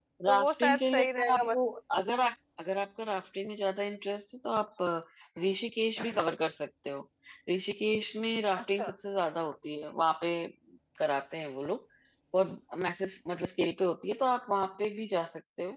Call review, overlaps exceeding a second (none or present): present